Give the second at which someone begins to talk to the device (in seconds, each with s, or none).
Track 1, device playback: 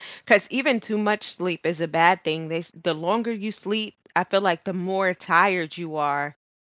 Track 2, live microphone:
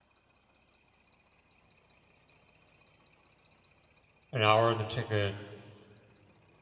4.3 s